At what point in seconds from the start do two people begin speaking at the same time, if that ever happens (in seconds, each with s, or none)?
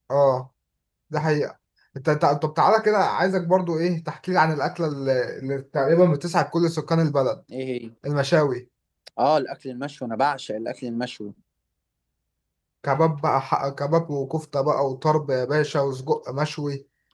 none